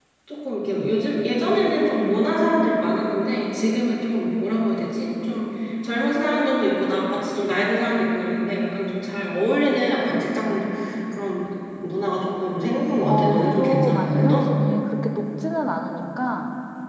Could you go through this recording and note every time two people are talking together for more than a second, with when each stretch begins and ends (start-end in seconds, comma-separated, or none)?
13.1-14.5